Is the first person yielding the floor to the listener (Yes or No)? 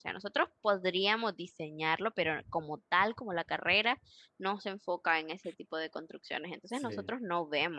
No